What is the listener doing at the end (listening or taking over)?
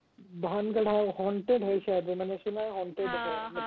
listening